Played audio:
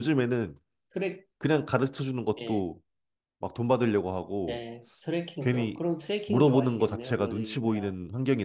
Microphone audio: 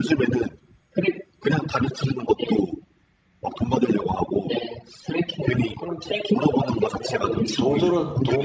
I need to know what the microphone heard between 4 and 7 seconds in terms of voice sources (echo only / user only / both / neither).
echo only